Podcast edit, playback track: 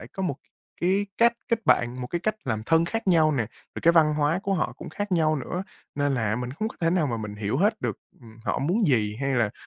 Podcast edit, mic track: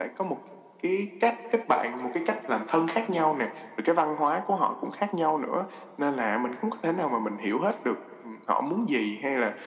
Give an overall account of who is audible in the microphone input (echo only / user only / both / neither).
echo only